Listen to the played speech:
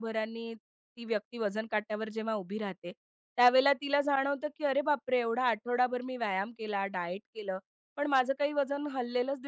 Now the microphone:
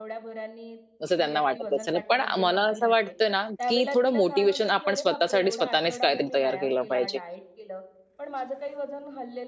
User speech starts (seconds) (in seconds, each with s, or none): 1.0 s